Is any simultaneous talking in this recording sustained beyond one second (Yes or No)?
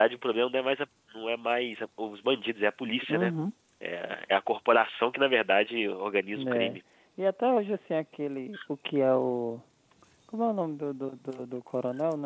No